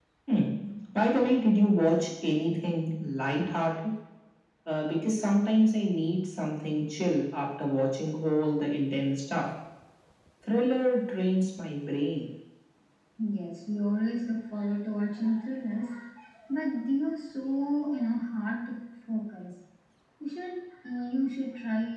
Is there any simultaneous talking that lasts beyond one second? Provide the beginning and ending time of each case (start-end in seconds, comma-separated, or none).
none